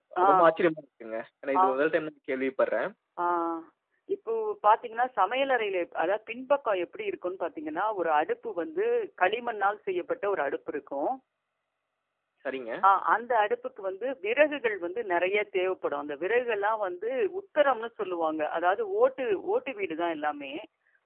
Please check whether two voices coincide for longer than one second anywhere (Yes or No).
No